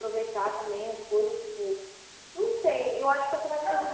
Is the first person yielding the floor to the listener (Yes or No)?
No